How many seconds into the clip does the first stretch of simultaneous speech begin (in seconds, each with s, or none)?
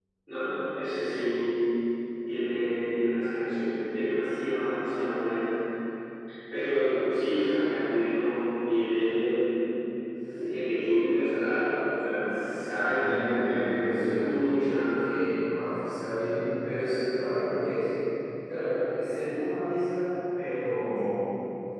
12.7 s